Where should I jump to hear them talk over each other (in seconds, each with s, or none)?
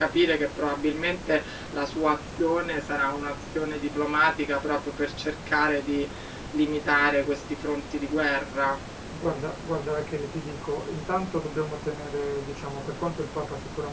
none